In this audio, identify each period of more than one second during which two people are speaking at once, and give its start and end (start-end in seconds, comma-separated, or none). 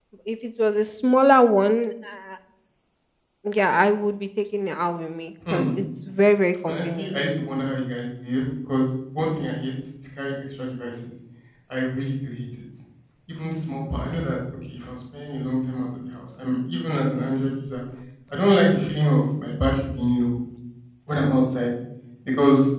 none